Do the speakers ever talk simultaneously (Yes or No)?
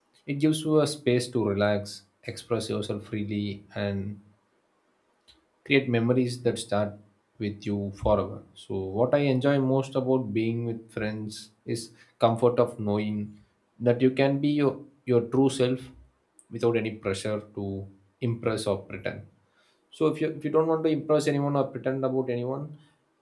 No